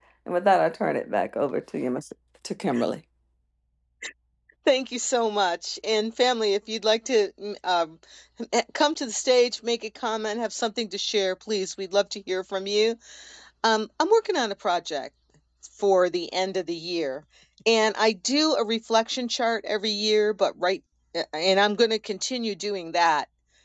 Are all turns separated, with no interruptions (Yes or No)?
Yes